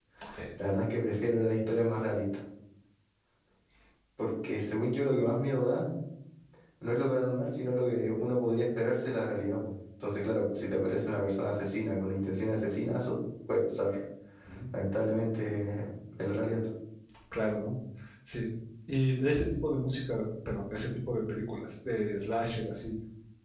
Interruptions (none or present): none